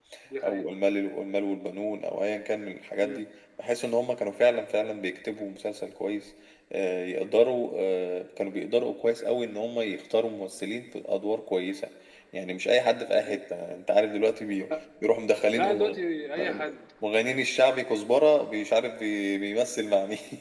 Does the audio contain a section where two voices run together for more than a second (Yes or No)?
No